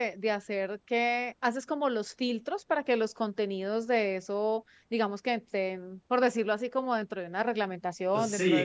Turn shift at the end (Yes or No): Yes